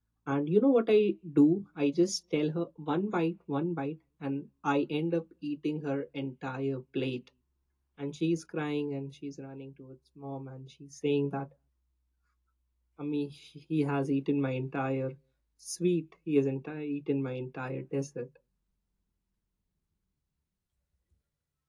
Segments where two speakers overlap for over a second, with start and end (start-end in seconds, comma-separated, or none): none